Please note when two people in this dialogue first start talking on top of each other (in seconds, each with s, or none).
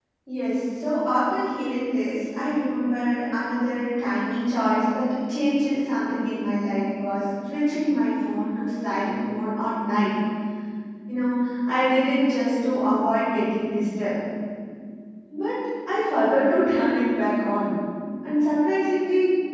none